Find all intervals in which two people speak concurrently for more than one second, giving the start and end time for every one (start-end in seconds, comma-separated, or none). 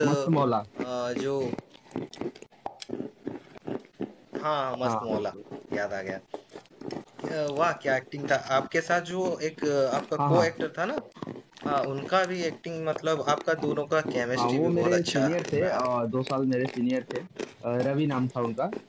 14.3-15.8